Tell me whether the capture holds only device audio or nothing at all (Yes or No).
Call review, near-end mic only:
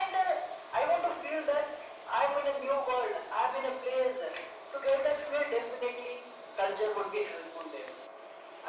Yes